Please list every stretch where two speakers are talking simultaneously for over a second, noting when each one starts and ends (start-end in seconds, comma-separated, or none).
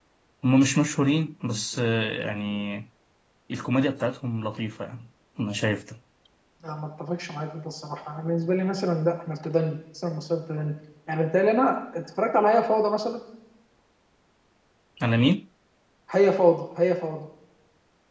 none